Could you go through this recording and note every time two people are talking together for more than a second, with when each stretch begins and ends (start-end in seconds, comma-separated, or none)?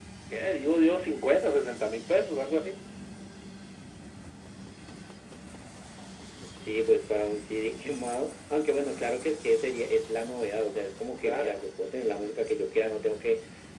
none